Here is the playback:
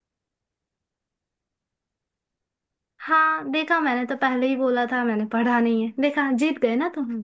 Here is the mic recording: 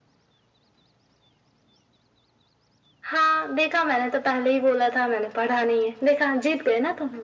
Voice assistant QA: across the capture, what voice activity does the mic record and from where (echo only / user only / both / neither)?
echo only